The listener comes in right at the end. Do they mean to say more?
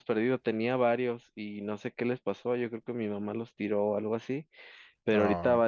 No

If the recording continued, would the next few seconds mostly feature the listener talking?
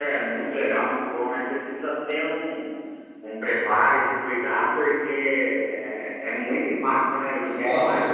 Yes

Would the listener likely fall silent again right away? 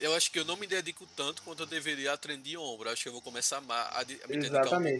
No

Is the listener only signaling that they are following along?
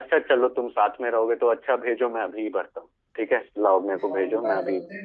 No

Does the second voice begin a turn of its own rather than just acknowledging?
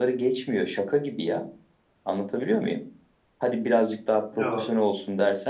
No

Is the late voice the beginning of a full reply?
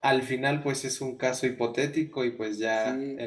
No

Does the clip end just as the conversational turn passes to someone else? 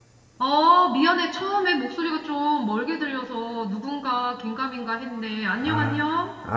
Yes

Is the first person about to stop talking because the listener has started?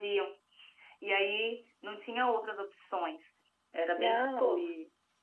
Yes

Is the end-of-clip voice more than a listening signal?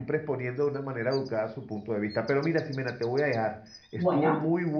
No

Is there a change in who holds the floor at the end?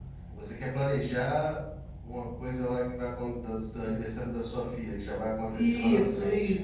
Yes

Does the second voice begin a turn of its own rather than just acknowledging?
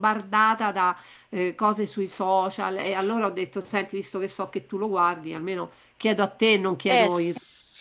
Yes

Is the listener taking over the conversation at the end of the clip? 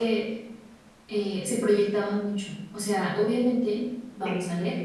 No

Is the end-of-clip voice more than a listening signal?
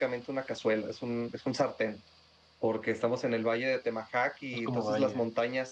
No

